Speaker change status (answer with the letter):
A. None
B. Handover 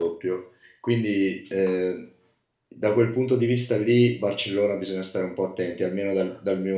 A